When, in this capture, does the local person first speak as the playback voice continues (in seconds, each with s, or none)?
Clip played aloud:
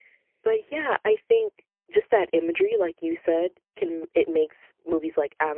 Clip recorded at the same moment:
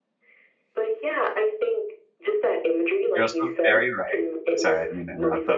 3.1 s